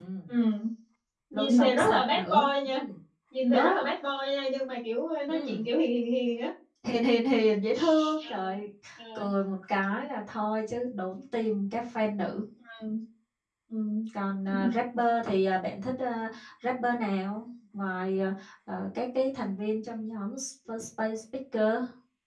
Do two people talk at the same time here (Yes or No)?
Yes